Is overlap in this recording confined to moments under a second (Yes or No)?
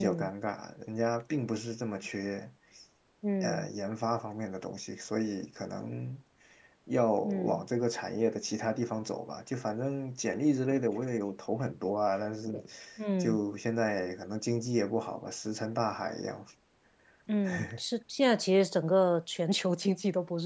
Yes